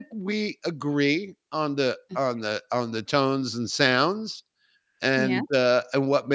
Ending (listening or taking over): listening